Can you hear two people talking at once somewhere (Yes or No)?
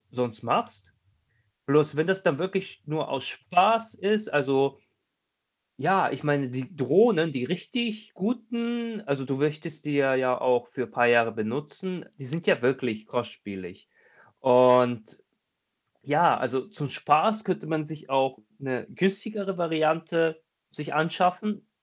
No